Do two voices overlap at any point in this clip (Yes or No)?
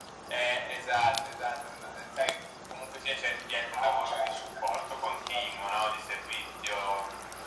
Yes